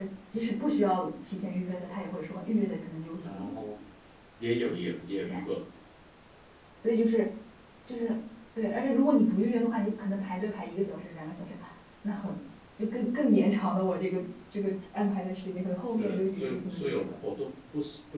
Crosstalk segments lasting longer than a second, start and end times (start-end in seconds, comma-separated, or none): 15.8-17.1